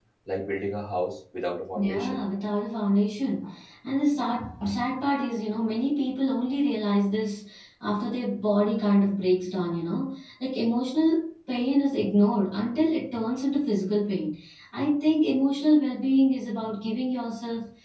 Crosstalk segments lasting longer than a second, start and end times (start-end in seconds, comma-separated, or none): none